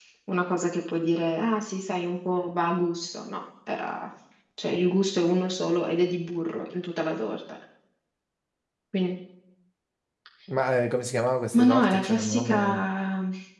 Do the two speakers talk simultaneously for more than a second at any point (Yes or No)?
Yes